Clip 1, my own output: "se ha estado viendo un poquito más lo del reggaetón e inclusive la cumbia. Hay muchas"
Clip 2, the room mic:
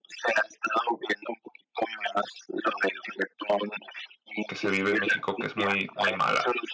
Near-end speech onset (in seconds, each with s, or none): 4.4 s